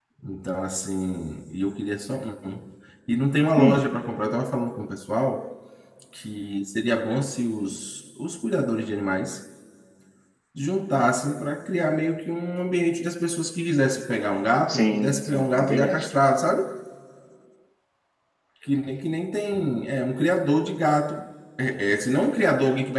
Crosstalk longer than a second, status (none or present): present